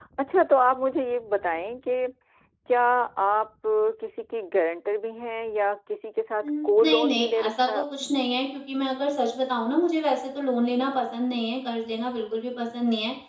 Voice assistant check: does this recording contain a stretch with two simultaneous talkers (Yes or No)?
Yes